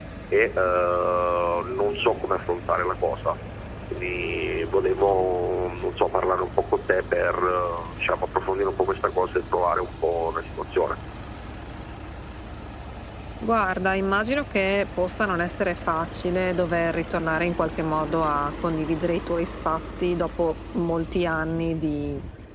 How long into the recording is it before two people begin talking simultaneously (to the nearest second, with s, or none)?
none